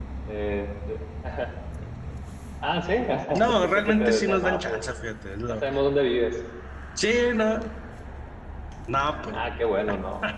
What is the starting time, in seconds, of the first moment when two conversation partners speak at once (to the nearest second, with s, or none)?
3 s